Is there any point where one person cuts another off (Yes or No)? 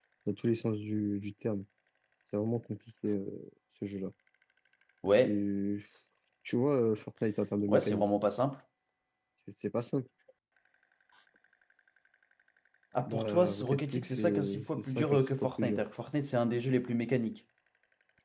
Yes